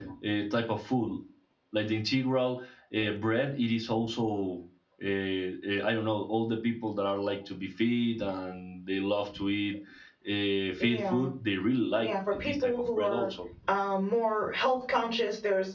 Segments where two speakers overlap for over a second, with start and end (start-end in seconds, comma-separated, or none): 12.0-13.3